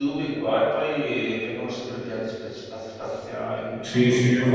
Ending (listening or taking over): taking over